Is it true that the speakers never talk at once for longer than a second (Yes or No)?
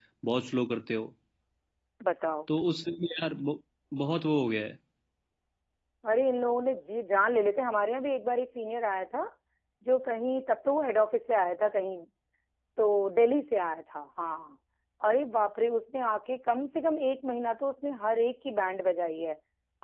Yes